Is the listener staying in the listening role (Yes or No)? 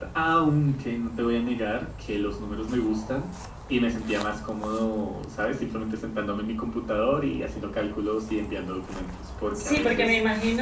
No